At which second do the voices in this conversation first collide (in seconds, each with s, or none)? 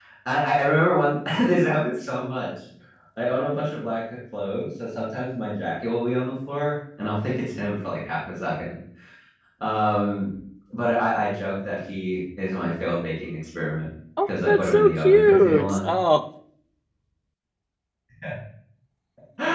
14.2 s